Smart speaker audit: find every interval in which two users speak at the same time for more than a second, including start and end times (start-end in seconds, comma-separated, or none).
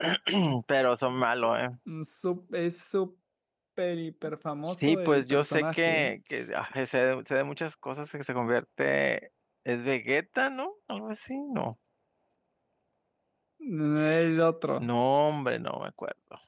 4.6-6.1